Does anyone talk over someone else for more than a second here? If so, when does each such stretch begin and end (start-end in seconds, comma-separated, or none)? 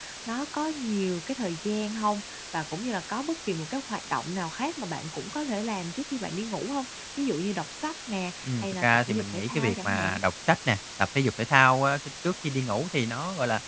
8.4-10.2